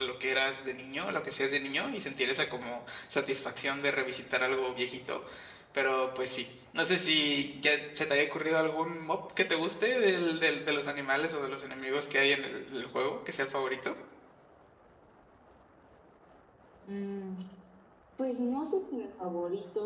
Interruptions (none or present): none